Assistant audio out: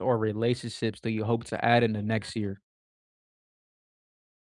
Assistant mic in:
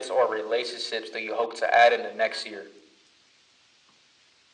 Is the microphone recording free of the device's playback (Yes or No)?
No